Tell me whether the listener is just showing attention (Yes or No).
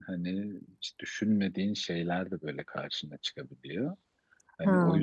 Yes